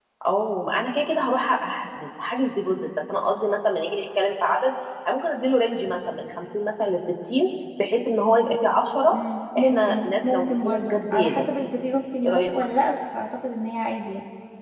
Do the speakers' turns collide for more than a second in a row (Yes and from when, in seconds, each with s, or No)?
Yes, from 9.6 s